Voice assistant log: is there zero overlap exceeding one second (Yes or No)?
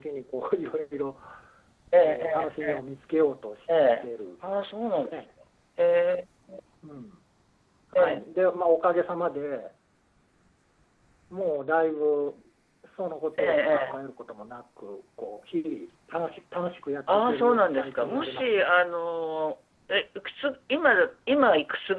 No